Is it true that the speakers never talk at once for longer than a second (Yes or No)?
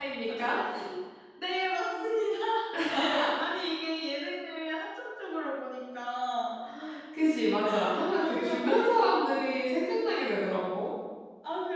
No